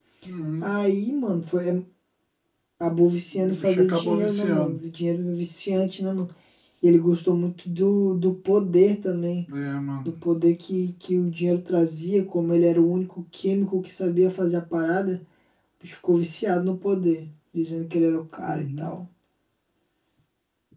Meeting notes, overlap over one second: present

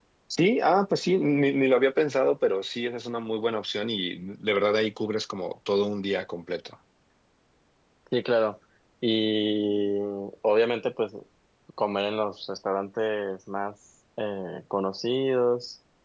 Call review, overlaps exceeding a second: none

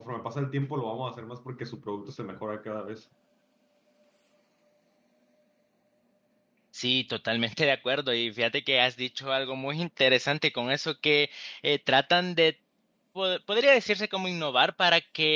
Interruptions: none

